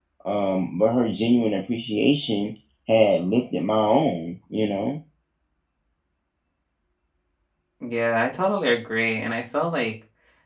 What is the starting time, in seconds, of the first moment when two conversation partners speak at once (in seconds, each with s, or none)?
none